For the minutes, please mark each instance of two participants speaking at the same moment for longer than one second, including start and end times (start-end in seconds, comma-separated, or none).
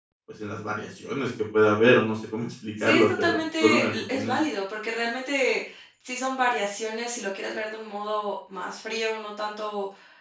2.8-4.3